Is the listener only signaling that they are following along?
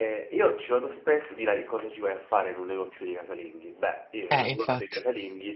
Yes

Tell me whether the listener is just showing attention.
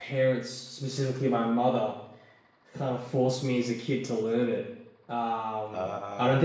Yes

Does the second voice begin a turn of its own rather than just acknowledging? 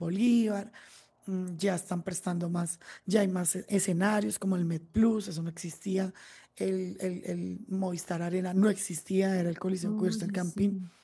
No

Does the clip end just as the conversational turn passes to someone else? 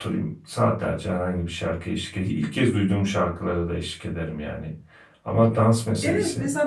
Yes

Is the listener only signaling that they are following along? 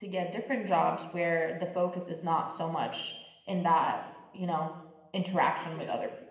No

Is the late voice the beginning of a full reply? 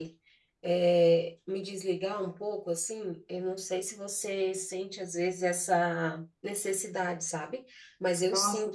Yes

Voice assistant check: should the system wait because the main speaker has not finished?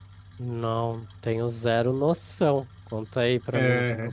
No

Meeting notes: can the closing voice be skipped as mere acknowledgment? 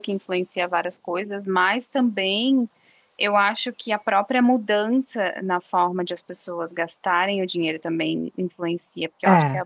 Yes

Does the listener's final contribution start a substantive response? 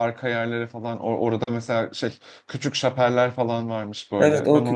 Yes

